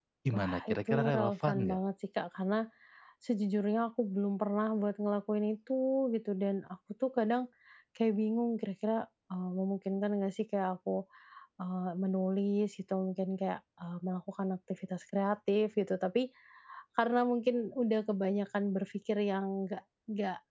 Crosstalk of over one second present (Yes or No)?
Yes